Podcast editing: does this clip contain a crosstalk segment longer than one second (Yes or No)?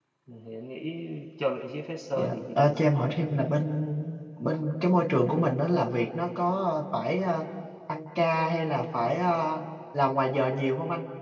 Yes